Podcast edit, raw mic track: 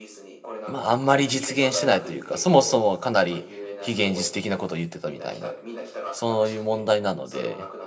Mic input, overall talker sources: both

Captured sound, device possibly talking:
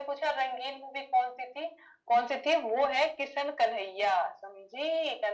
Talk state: echo only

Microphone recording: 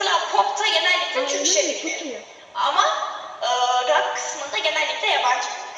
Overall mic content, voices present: both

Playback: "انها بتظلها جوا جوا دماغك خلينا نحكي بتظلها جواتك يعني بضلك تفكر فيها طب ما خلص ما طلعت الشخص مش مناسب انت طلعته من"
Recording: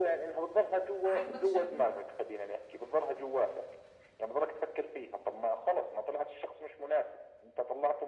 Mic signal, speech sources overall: both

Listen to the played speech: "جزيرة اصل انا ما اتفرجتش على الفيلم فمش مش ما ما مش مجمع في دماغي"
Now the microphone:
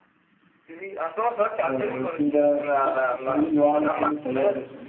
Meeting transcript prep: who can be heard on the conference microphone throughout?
both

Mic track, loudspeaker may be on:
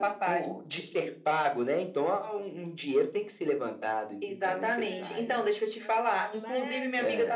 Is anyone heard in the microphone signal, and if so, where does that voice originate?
both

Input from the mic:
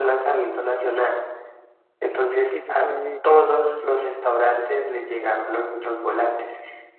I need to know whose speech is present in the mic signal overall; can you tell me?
both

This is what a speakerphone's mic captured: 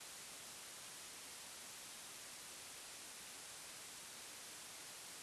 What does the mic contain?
neither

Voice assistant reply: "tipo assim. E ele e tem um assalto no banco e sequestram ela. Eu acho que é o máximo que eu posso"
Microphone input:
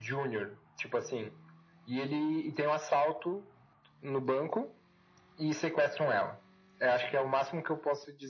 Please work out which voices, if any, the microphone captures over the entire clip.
echo only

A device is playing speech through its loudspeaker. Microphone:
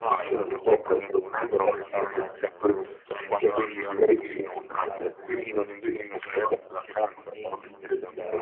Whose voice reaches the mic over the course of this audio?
both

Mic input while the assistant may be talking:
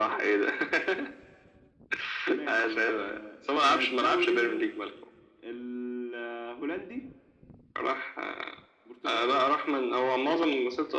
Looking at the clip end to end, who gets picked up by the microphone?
echo only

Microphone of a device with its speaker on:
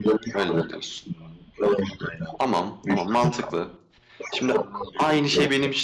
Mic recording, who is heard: both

